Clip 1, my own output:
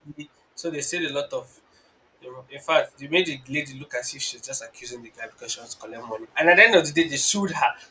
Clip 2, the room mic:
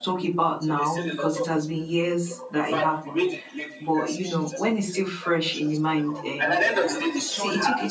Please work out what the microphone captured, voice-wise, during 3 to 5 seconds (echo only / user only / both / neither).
both